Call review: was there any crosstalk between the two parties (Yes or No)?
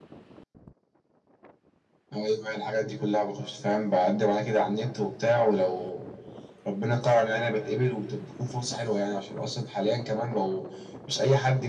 No